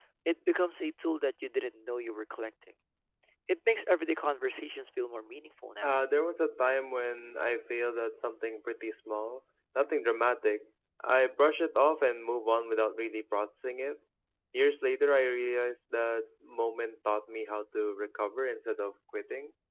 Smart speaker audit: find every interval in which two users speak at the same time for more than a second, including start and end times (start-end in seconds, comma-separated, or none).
none